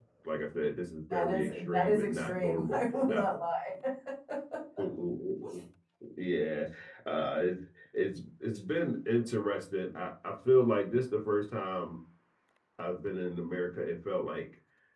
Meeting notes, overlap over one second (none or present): present